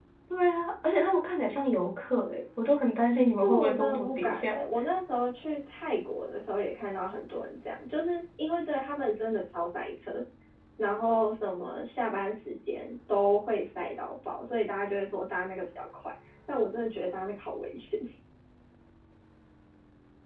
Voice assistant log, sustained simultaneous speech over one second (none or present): present